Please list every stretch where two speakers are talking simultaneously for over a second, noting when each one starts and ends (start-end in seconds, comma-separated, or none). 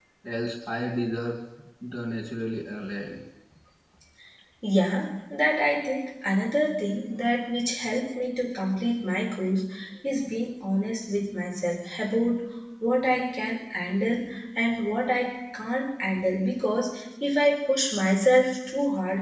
none